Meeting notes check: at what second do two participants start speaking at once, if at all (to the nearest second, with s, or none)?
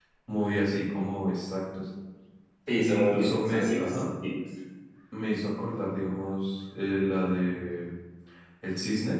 3 s